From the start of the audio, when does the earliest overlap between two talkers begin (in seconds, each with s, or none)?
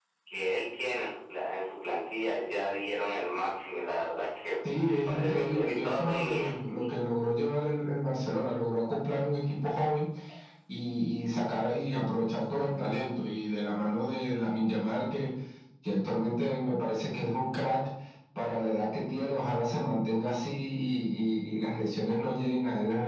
4.6 s